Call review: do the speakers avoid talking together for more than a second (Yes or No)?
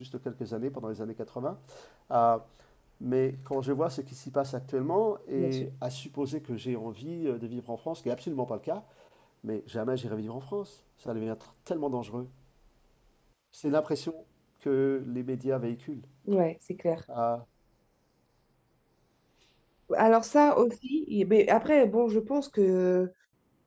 Yes